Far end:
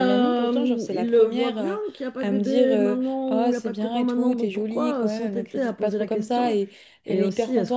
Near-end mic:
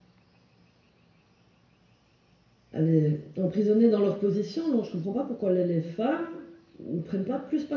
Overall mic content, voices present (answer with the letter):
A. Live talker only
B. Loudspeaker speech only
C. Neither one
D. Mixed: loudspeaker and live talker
A